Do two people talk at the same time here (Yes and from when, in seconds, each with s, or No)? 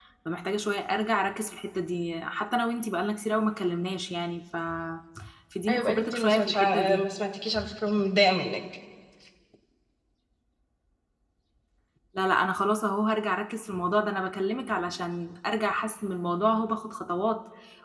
Yes, from 5.7 s